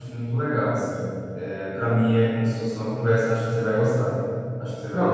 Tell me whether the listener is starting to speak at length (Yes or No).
Yes